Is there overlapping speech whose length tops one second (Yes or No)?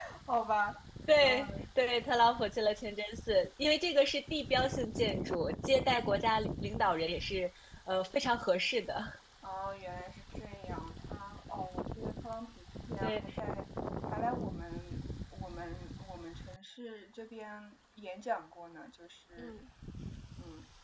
No